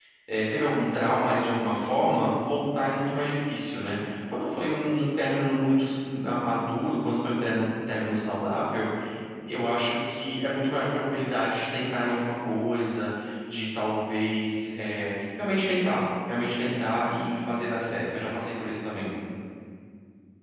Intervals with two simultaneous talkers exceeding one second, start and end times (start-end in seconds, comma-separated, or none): none